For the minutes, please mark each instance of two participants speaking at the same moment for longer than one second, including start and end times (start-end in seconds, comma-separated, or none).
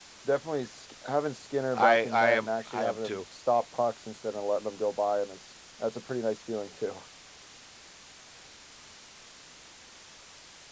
1.7-3.2